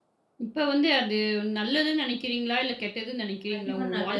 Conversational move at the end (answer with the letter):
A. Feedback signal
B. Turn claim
B